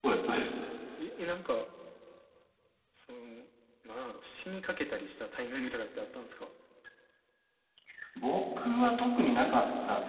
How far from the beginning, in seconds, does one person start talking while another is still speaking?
none

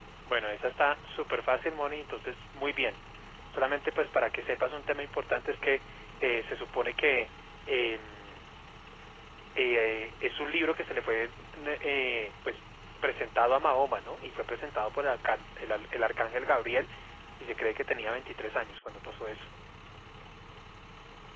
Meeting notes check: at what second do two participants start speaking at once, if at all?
none

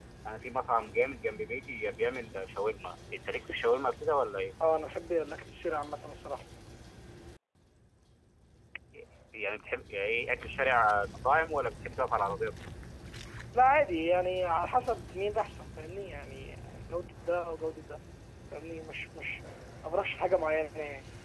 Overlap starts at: none

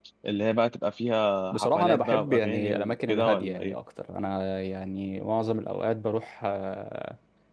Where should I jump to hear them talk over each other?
1.5 s

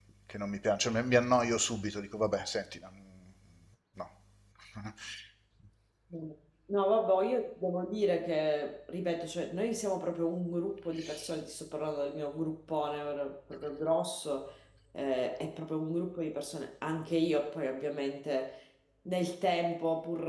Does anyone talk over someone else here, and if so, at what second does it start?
none

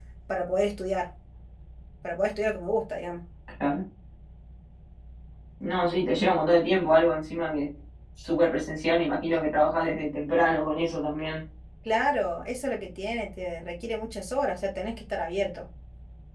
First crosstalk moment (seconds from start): none

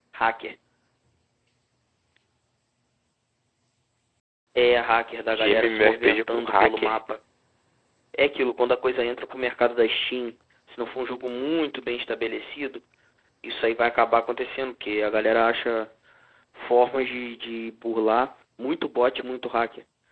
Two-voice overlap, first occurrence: 5.3 s

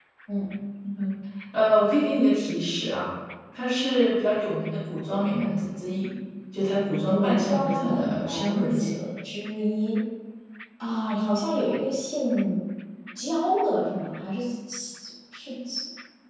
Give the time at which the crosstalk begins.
7.1 s

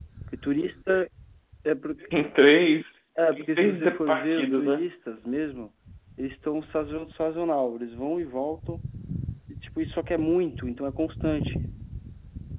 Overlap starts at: 3.2 s

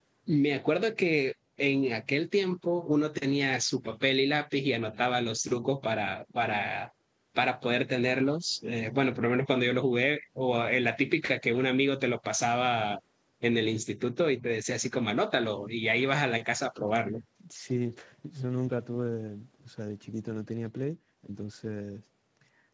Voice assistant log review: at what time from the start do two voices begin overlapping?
none

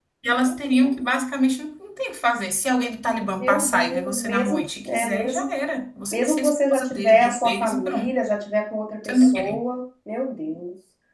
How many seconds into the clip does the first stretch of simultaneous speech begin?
3.4 s

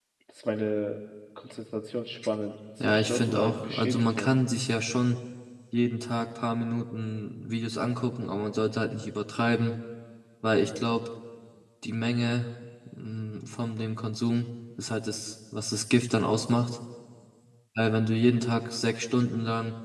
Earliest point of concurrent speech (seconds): 2.8 s

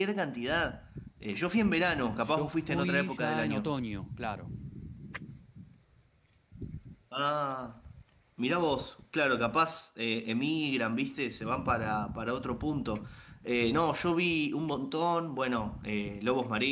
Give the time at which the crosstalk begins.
2.2 s

